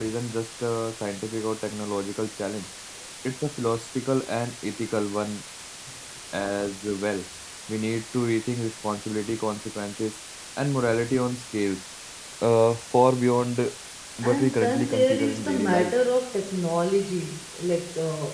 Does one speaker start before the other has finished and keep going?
Yes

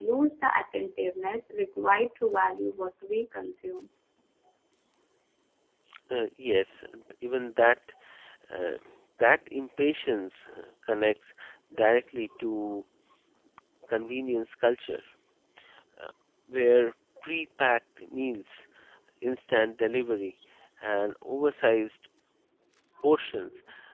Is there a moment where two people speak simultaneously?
No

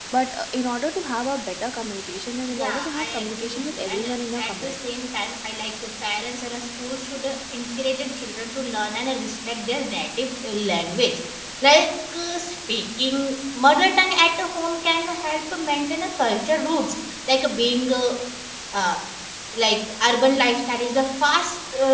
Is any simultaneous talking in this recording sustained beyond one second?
Yes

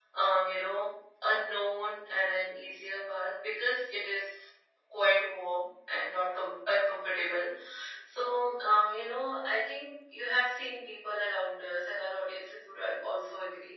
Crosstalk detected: No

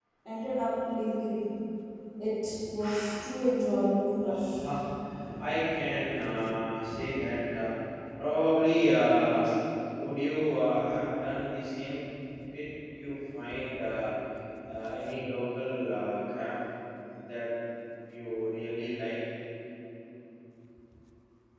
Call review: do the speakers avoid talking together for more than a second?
Yes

